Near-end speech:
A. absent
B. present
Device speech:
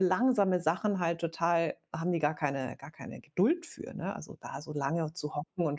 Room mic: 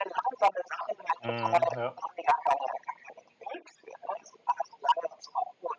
B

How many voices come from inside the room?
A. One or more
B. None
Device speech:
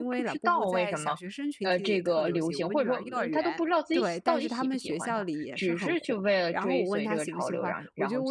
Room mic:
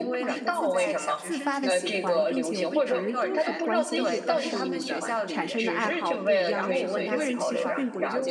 A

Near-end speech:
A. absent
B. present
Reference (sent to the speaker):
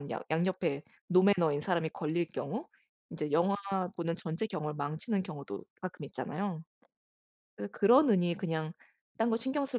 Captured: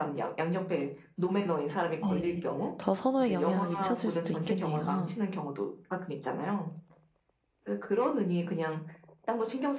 B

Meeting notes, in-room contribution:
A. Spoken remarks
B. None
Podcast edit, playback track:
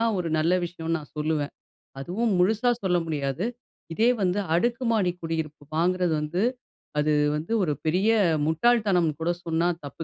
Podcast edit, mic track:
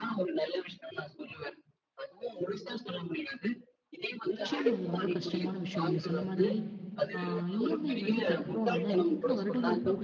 A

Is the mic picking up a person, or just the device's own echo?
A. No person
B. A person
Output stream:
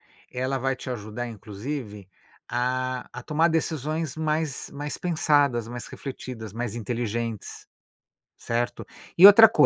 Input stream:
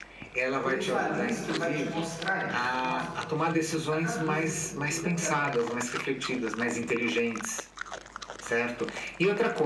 B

